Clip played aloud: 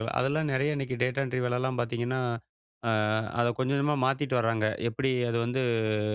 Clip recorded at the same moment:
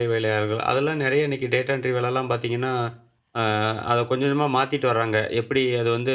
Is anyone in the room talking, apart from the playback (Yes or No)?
No